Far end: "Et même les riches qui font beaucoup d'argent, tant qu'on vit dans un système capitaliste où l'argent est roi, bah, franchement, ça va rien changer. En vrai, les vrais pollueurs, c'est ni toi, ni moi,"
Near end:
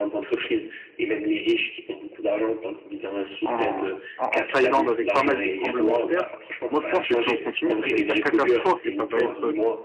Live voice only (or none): en, en- en- en Thaïlande avec pas mal de tremblements de terre. Moi, je pense que si on continue, ça va être la catastrophe et ça va être,